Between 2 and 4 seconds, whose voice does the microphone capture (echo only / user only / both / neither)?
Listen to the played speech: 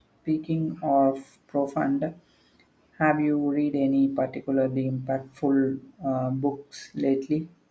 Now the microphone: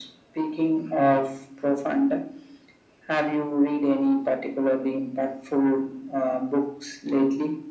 echo only